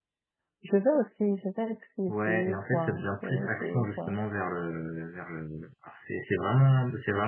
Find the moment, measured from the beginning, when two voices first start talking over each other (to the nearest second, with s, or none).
2 s